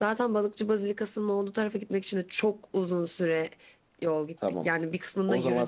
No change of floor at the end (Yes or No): No